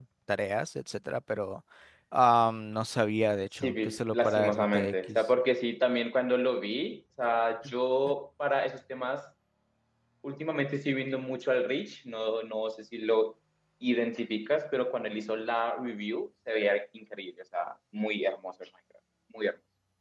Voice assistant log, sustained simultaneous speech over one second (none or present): present